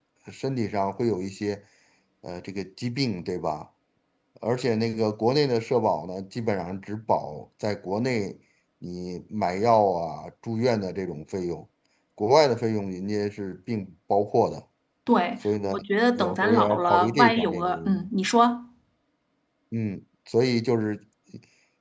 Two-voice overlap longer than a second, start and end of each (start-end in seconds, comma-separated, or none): 16.2-18.1